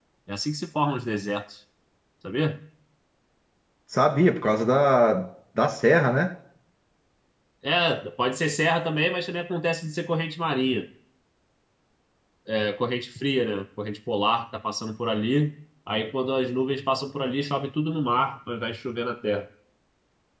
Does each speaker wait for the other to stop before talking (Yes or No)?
Yes